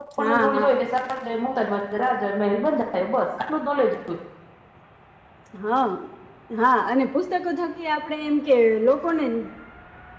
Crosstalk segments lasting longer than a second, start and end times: none

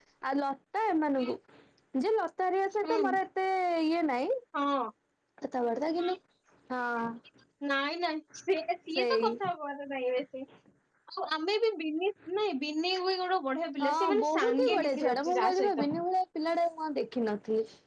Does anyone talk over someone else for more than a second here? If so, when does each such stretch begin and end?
13.8-15.8

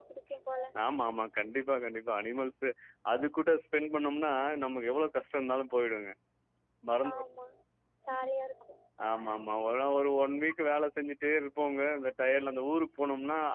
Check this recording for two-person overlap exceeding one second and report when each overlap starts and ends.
none

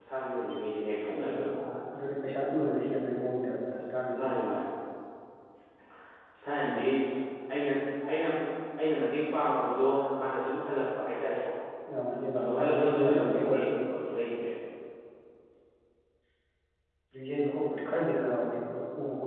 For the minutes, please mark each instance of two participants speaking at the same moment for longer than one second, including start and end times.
12.4-13.7

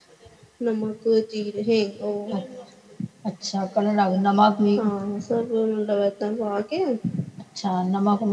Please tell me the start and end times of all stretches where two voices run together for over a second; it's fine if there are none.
none

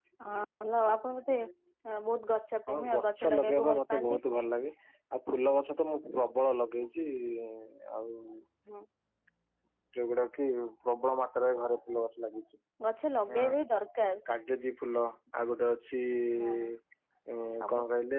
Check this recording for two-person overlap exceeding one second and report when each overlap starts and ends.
2.7-4.2

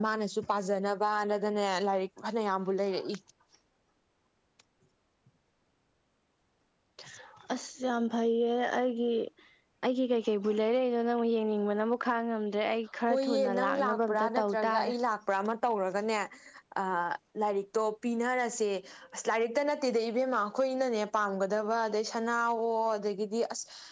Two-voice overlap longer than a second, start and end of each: 13.1-14.9

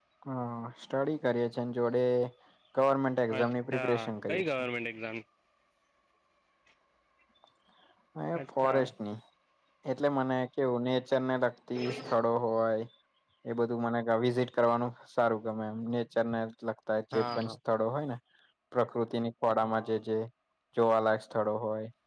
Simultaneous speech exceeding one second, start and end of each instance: 3.4-4.7

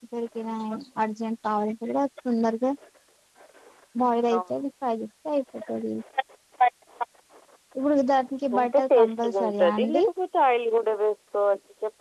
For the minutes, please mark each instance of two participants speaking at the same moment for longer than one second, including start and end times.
8.6-10.0

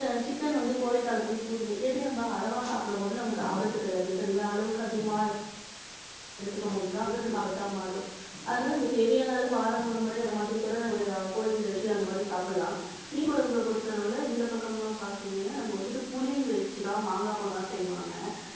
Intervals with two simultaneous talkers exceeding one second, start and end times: none

